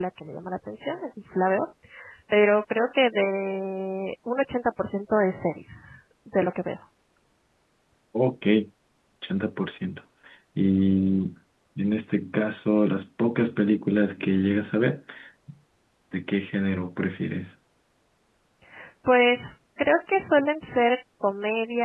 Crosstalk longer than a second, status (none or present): none